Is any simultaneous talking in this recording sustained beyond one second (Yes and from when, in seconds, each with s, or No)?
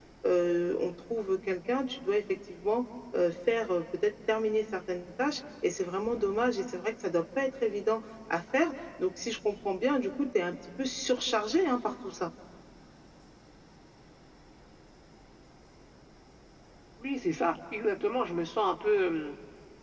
No